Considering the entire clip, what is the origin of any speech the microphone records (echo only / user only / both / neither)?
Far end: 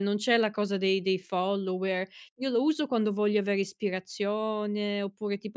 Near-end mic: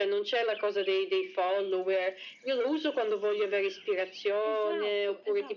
both